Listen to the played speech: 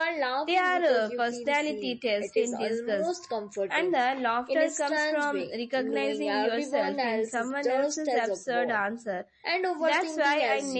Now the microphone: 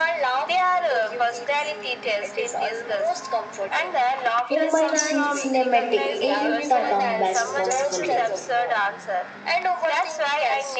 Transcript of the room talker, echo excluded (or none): movements feel cinematic in the dumbest possible way.